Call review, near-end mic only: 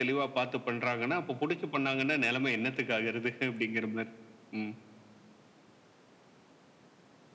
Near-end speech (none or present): none